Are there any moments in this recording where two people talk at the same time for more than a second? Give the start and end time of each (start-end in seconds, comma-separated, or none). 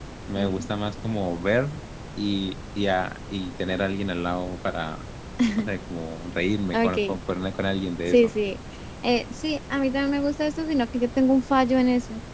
none